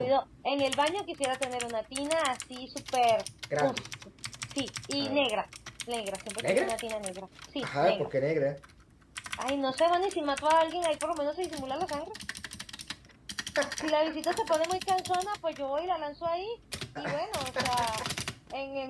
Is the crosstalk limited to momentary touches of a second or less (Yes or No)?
Yes